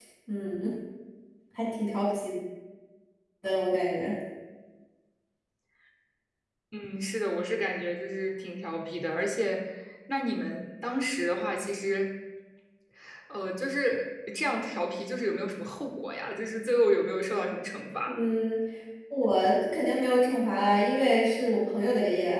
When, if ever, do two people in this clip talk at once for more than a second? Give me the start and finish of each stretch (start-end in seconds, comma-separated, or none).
none